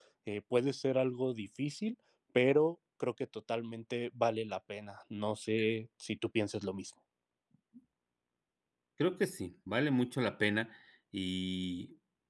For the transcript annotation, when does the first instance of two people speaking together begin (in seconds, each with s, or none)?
none